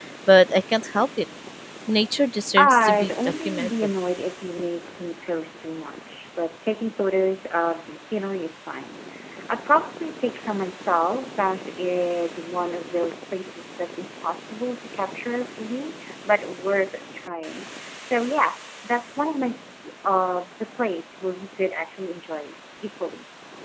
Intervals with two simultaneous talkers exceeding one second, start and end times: 2.6-3.9

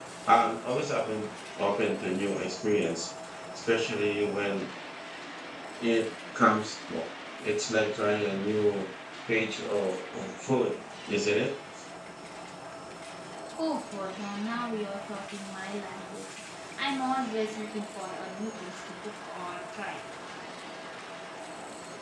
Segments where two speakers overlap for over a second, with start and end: none

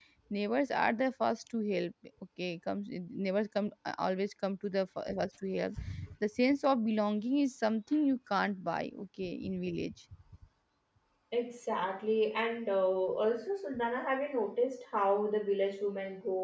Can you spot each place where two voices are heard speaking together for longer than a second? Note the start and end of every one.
none

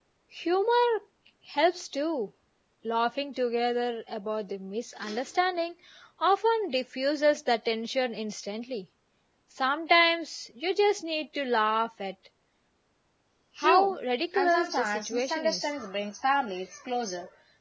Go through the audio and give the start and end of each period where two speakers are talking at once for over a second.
14.4-15.7

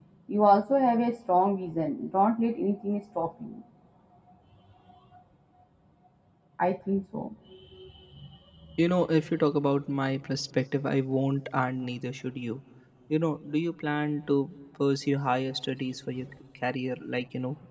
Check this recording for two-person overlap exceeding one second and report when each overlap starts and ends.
none

